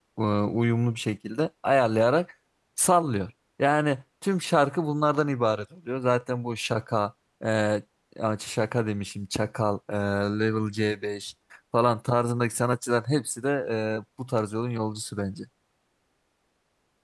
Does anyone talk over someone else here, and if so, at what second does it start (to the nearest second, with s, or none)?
none